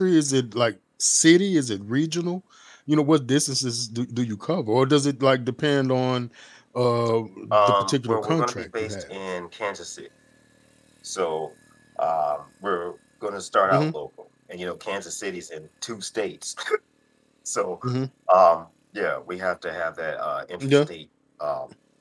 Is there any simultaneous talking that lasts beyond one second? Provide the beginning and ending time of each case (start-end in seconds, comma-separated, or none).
7.6-9.0